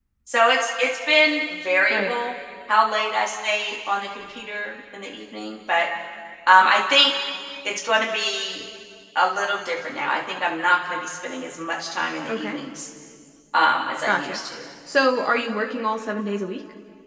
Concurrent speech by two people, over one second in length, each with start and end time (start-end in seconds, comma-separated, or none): none